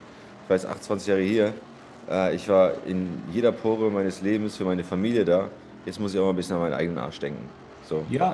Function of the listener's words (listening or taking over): taking over